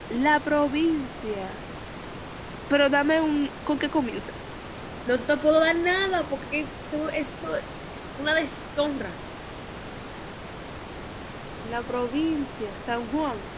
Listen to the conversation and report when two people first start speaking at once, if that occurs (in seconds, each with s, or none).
none